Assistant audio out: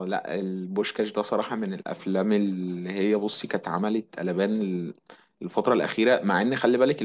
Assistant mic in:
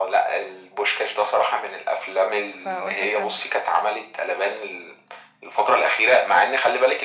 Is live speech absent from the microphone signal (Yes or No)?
No